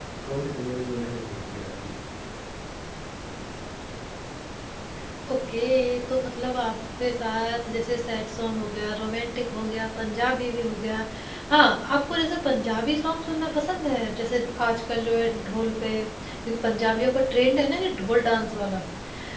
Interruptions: none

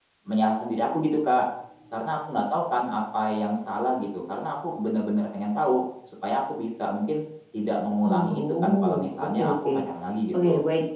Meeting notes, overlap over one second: present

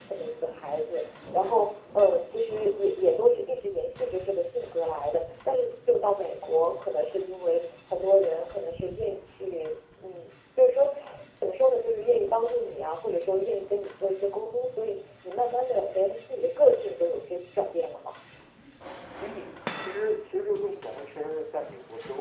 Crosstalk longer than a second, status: none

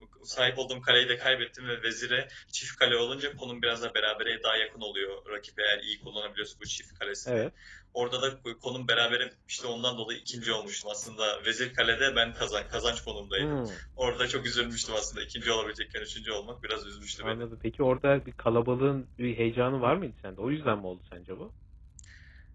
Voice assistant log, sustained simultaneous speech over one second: none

